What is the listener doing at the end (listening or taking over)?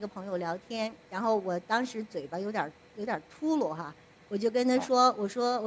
listening